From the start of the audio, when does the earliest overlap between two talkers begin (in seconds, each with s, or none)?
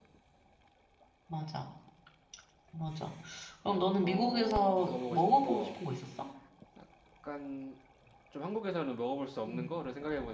4.0 s